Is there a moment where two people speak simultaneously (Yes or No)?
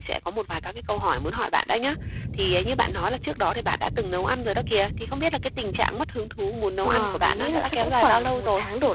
Yes